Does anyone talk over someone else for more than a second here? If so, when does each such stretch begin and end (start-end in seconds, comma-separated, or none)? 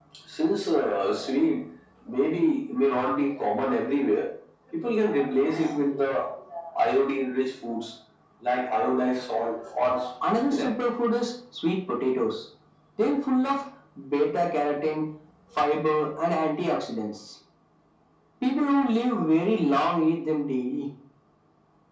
none